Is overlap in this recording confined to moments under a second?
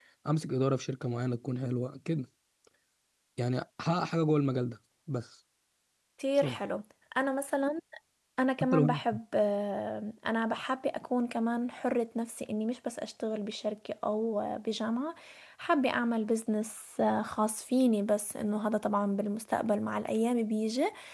Yes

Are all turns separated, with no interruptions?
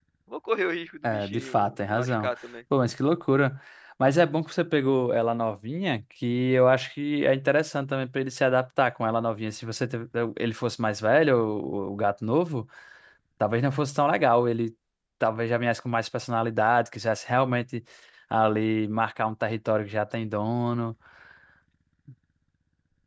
No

